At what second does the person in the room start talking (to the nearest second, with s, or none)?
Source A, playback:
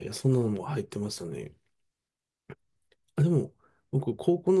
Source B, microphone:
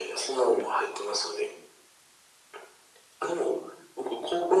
none